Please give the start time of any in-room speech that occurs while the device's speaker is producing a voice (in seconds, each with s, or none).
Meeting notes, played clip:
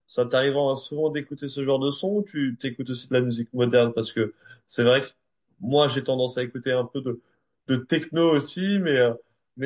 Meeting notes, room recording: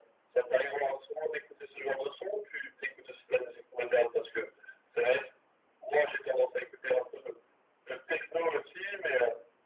none